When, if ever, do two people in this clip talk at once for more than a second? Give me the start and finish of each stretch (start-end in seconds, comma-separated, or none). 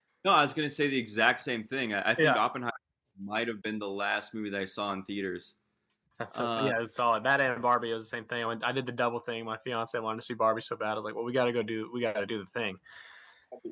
none